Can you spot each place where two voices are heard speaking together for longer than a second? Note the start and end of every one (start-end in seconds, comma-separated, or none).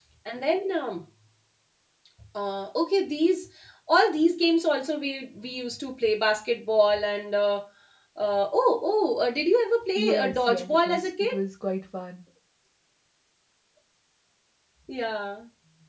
9.9-11.3